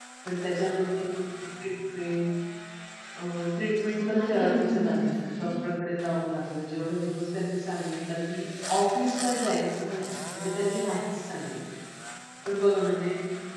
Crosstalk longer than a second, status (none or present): present